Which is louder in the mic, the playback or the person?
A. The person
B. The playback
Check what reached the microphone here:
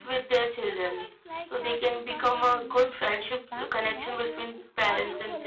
B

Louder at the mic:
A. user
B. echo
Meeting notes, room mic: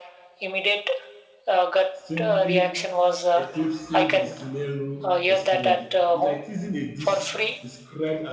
B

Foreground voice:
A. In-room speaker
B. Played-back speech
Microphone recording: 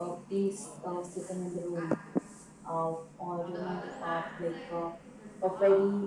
B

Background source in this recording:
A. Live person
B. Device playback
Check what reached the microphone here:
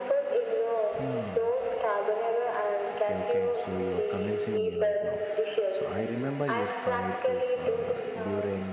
A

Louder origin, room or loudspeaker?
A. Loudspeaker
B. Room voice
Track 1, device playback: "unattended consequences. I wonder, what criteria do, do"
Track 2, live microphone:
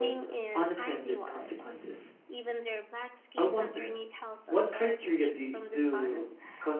A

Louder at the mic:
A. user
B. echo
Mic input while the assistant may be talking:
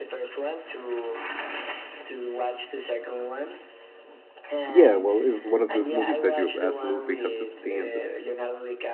A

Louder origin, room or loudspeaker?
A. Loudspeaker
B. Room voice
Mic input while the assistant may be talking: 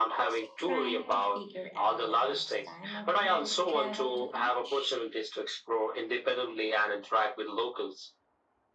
A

